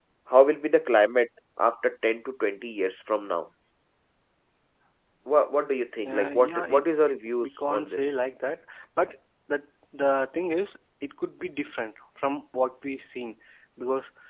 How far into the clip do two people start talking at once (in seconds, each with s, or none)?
6.0 s